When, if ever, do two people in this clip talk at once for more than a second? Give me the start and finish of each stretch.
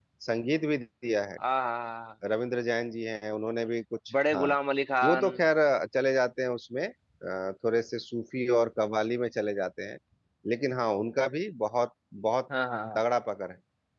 none

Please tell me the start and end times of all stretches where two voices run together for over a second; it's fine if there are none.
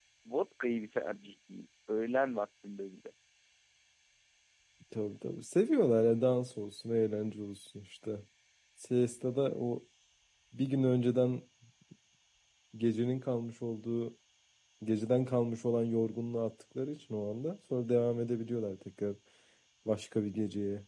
none

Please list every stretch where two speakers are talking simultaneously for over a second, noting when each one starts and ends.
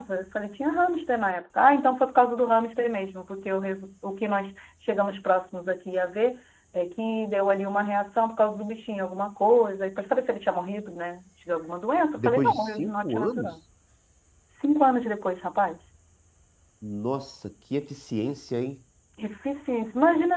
12.2-13.5

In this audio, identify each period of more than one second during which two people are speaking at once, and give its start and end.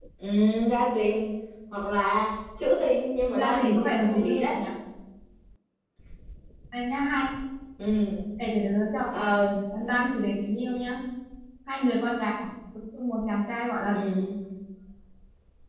3.2-4.5

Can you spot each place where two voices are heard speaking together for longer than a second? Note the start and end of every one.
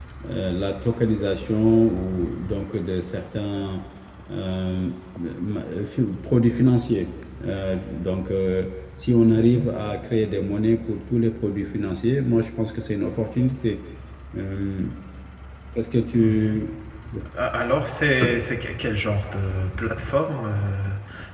none

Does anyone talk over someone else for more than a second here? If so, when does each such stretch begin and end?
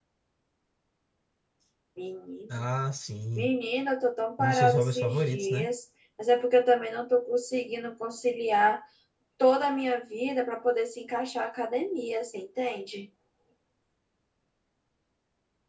4.4-5.7

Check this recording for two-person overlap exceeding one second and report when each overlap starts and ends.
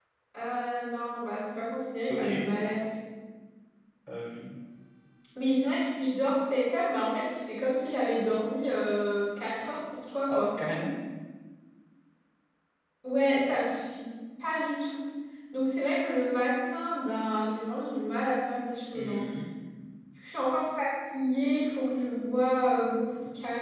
none

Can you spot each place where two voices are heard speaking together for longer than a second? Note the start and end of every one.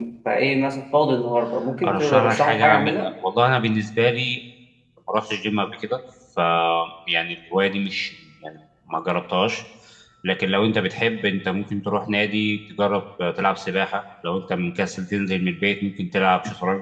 1.9-3.1

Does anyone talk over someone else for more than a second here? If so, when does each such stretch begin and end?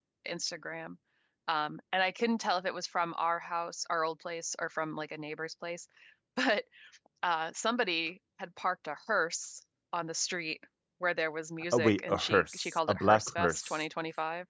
11.7-13.8

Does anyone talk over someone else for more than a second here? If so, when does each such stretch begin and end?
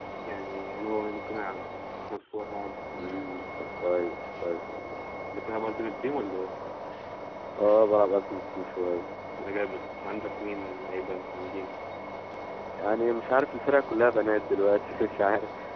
none

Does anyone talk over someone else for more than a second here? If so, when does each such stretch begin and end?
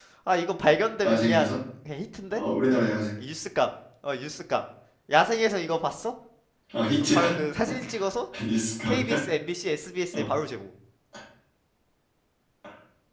none

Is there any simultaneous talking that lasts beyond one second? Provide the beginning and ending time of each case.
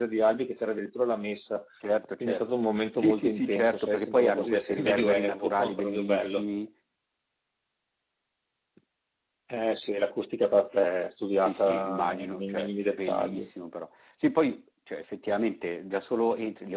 3.0-6.5, 11.4-13.5

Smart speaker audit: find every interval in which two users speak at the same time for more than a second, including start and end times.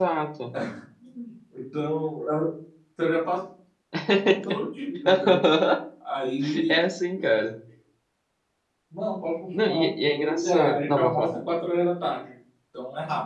9.6-11.3

